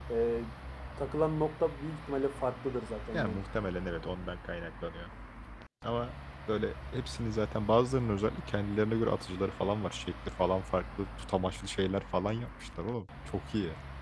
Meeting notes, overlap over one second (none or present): none